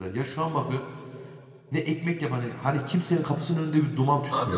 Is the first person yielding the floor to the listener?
Yes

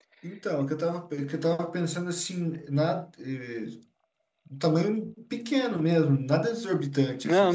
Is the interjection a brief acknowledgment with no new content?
No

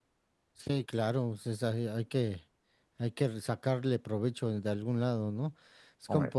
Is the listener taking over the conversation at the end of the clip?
No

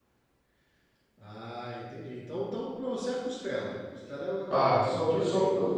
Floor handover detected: Yes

